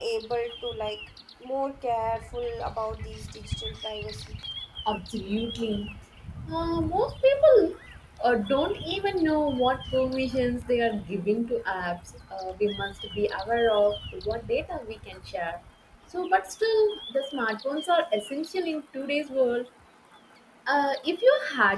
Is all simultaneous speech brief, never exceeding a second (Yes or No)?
Yes